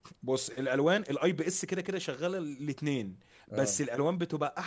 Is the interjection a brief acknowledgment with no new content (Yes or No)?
Yes